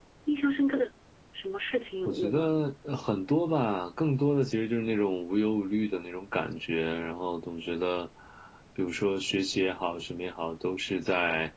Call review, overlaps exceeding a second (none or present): none